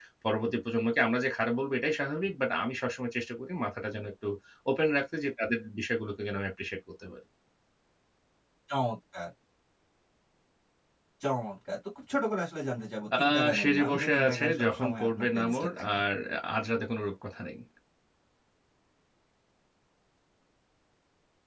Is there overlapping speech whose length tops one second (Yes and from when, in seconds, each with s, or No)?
Yes, from 13.1 s